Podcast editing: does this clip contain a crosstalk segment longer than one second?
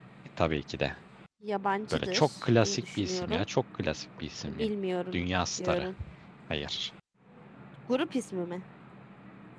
Yes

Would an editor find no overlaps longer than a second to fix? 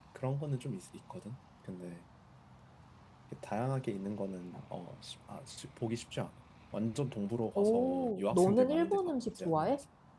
No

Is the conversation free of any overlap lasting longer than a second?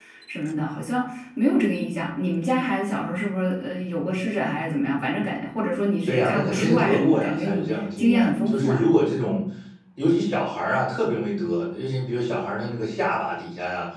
No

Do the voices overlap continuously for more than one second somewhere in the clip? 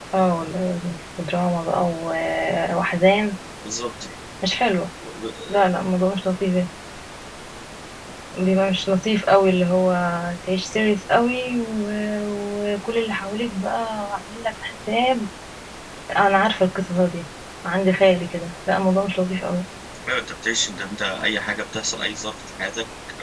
No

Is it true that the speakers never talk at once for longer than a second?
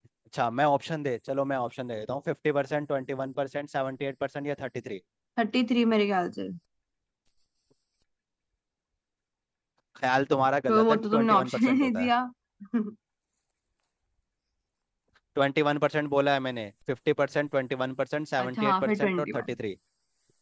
No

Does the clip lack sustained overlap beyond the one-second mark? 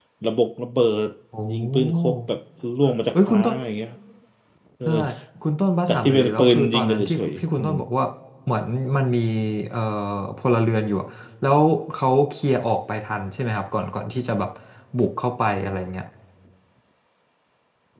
No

